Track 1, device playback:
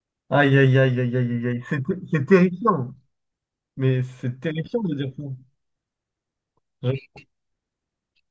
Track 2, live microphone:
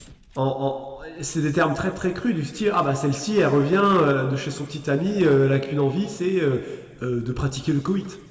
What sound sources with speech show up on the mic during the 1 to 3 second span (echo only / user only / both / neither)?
user only